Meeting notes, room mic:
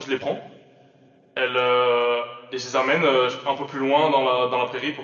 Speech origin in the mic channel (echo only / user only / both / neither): user only